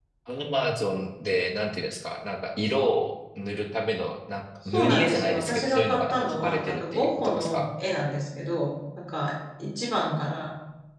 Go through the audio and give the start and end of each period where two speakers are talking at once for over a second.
4.7-7.7

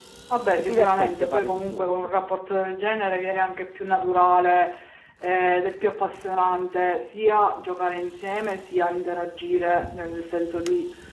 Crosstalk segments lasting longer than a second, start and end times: 0.6-1.9

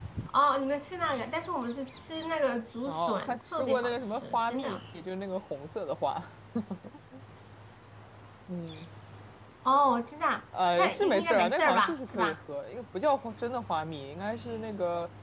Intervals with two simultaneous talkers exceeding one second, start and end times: 2.9-4.8, 10.8-12.4

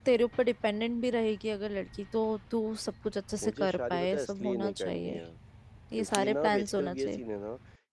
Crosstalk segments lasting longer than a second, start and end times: 3.4-5.2, 6.0-7.2

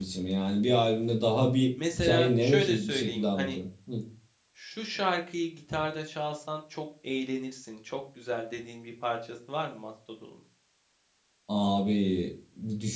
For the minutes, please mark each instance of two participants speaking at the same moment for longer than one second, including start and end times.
1.9-3.6

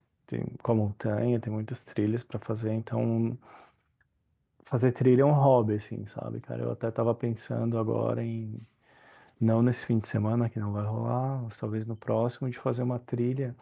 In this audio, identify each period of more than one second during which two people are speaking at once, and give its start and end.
none

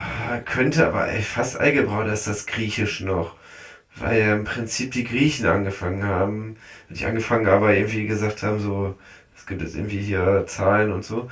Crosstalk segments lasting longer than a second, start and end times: none

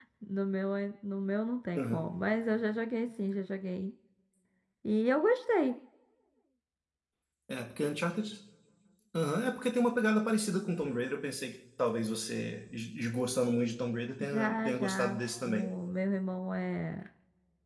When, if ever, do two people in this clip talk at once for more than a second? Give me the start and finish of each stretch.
14.2-15.7

